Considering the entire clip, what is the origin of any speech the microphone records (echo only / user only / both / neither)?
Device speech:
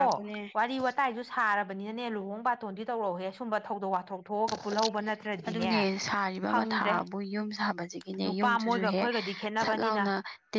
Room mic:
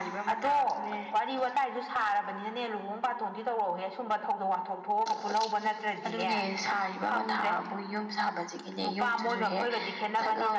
echo only